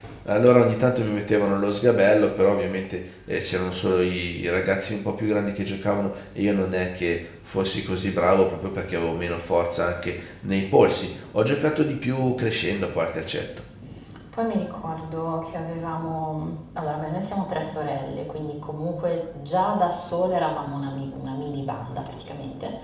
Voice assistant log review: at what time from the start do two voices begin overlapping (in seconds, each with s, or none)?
none